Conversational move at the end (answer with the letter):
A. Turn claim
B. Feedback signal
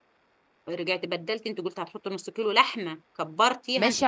A